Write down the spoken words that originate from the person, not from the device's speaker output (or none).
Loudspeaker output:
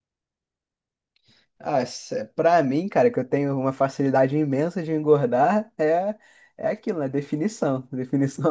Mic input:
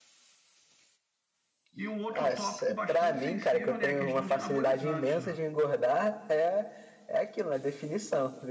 E um outro tópico bastante sensível, né, é a questão de anabolizantes, né?